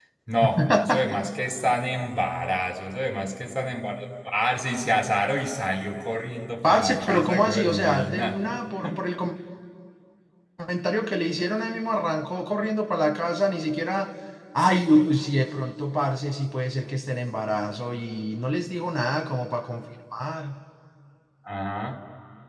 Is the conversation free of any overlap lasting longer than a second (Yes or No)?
No